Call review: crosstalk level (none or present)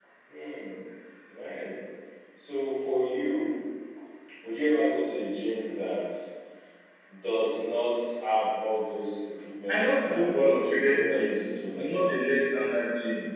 present